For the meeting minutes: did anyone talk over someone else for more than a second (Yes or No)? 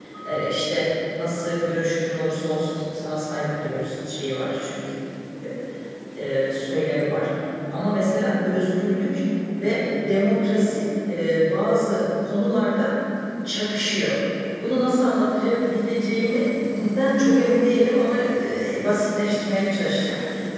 No